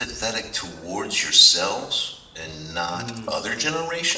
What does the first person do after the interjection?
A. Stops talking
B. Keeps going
B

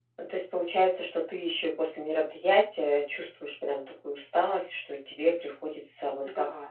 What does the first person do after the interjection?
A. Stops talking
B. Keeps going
B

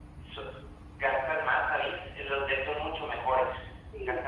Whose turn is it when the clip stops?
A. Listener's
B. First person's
A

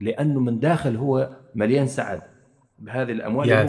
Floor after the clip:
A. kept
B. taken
A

